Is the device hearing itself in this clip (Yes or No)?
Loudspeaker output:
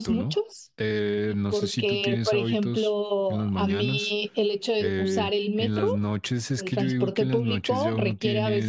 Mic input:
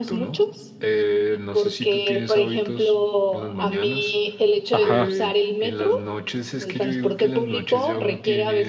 Yes